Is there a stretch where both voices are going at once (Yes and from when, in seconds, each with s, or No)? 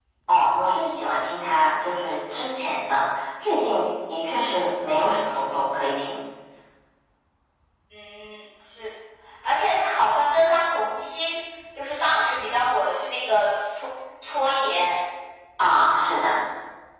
No